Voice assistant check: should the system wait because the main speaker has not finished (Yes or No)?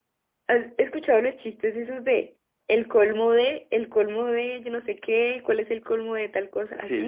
No